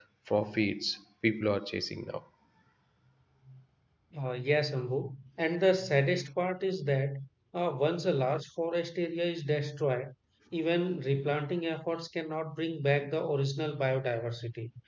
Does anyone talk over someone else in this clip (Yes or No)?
No